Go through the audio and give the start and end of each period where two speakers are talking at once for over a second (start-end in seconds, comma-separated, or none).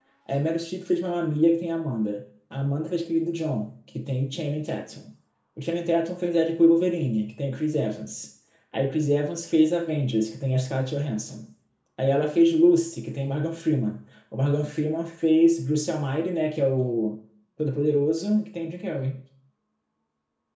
none